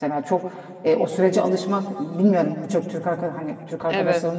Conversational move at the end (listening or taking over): listening